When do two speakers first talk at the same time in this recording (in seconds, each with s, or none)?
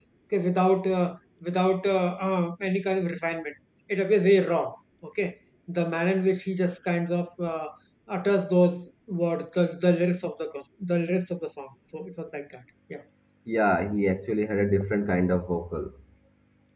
none